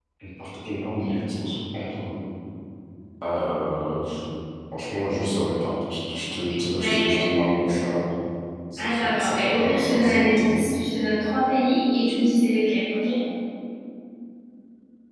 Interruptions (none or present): present